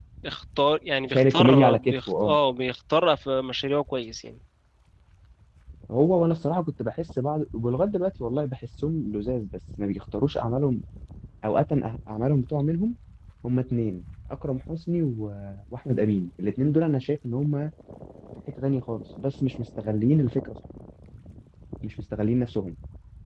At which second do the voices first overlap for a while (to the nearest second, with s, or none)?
1 s